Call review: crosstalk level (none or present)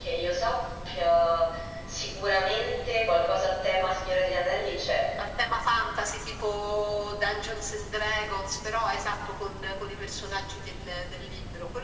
none